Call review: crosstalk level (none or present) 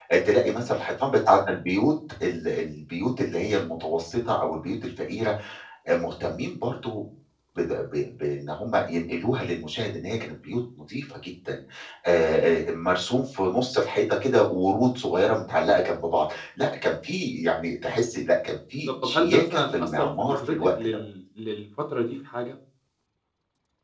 present